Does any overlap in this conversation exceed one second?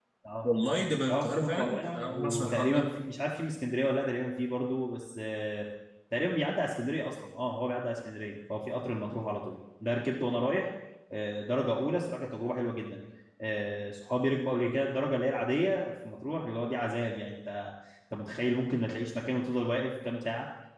Yes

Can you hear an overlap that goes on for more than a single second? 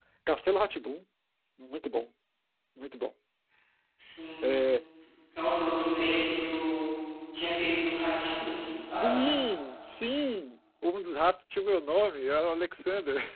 No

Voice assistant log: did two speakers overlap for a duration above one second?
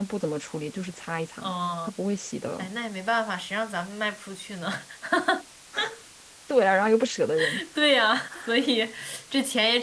No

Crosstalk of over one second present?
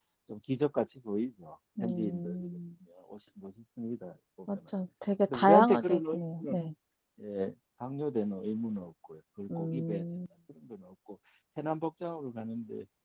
Yes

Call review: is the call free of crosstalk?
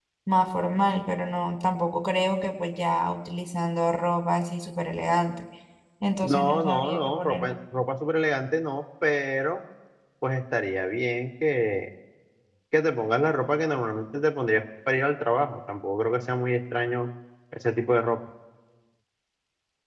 No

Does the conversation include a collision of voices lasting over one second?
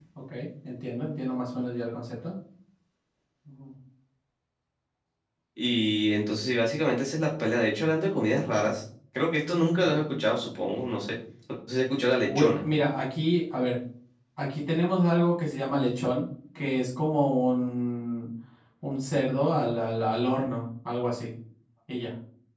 No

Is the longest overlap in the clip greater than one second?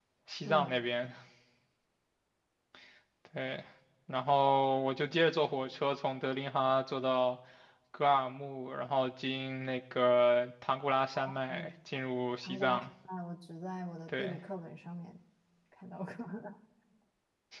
No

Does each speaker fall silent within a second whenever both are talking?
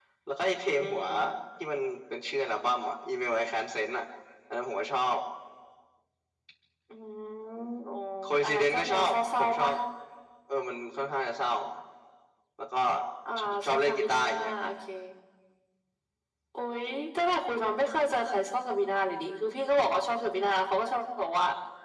No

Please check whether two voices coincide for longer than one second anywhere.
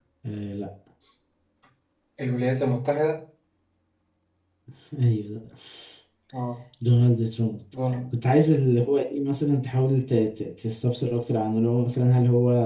No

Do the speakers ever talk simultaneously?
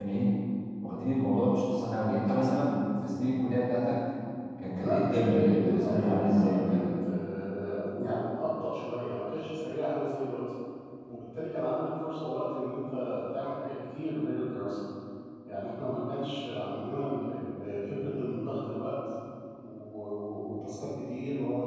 Yes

